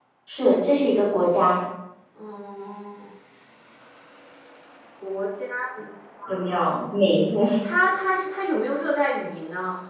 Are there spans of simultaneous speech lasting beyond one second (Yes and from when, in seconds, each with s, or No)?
No